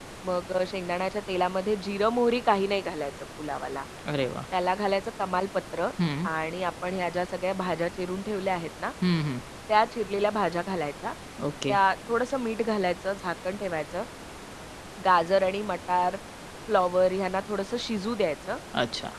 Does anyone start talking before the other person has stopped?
No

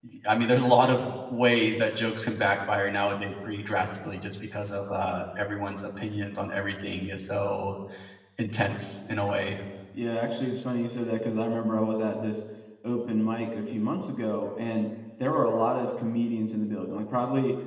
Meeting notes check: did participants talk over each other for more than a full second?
No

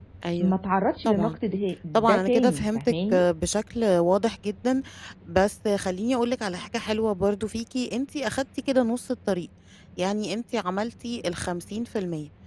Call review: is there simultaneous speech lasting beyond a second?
Yes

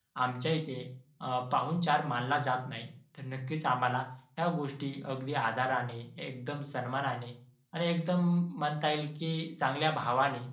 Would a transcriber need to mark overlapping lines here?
No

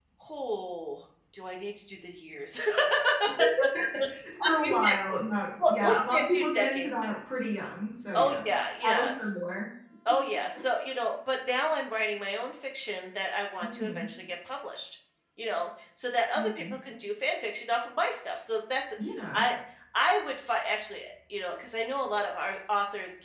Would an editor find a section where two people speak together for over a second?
Yes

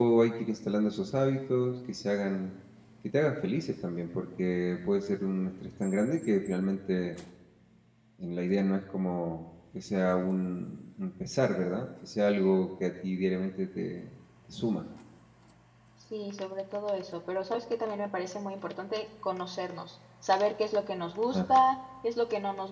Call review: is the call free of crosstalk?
Yes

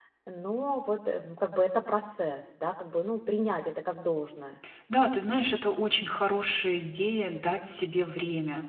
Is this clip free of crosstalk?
Yes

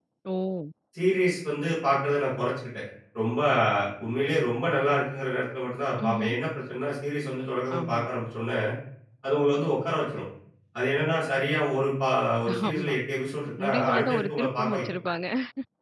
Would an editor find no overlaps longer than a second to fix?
No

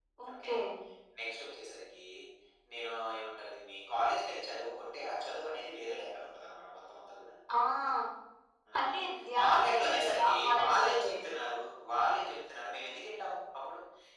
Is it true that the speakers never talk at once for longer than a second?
No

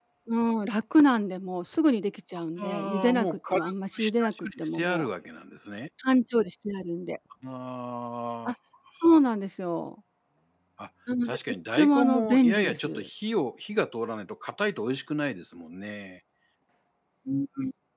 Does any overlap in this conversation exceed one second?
Yes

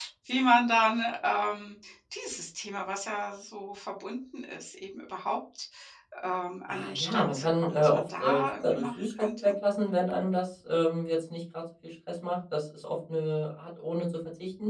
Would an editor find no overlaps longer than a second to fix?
No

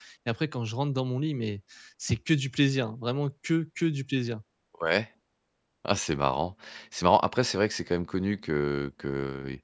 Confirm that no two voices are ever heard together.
Yes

